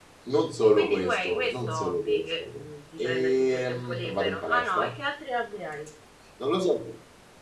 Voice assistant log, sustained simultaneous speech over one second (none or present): present